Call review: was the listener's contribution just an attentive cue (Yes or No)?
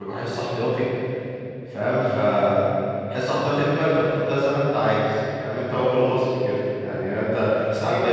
Yes